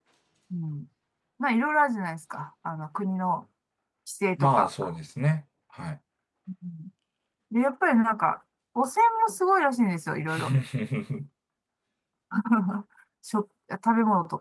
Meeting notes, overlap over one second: none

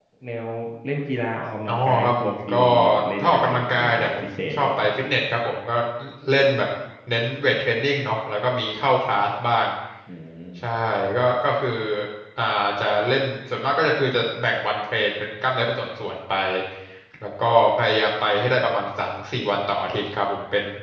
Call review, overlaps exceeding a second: present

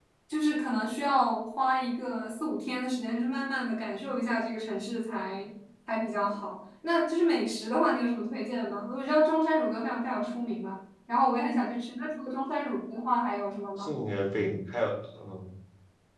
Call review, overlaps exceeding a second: none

